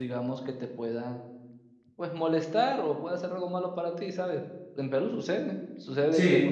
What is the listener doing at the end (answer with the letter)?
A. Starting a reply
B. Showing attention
B